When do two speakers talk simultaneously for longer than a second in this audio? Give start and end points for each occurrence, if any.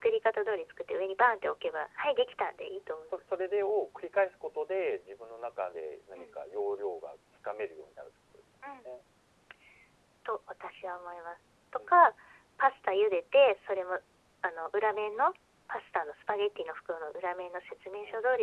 none

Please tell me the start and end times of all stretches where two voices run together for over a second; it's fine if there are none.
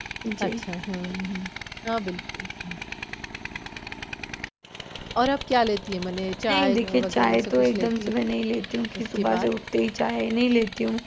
6.5-8.3

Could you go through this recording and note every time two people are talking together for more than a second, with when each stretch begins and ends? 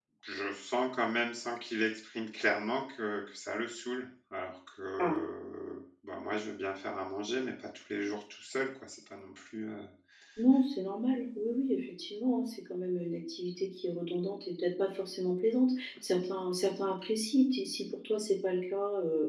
none

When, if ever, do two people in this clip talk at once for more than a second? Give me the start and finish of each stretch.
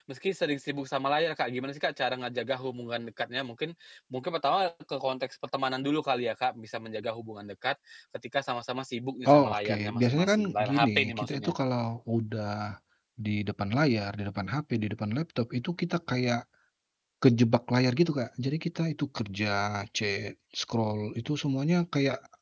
9.2-11.5

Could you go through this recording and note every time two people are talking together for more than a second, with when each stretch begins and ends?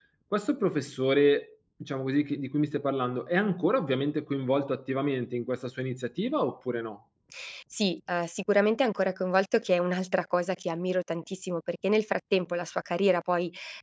none

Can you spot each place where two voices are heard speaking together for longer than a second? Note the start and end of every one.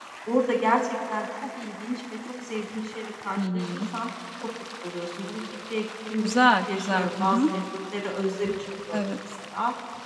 6.2-7.5

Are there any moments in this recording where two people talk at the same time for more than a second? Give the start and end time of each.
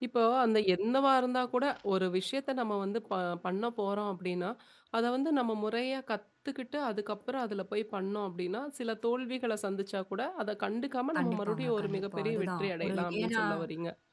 11.2-13.4

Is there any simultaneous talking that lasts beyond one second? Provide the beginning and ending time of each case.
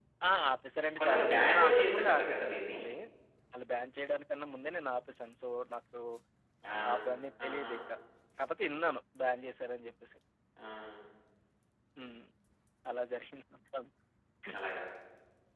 1.0-2.8

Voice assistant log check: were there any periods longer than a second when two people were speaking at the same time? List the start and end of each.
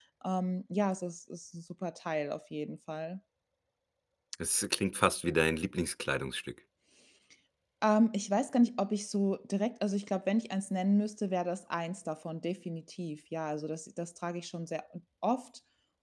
none

